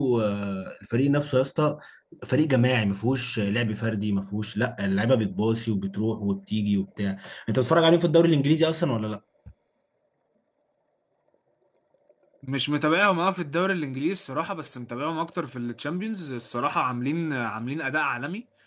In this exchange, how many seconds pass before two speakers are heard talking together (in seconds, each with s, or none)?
none